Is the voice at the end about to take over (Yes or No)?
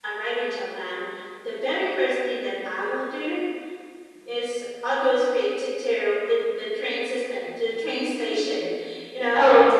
No